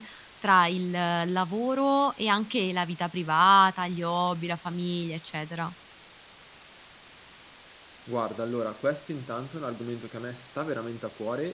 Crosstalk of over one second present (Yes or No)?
No